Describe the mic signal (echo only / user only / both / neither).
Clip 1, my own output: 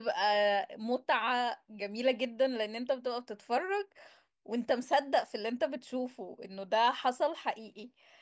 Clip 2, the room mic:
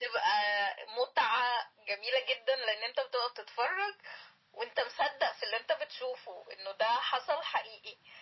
echo only